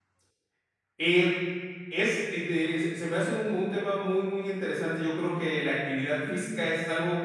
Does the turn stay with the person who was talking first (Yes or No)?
Yes